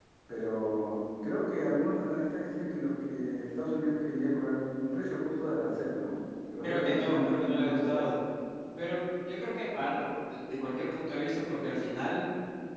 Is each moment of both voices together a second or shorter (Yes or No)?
No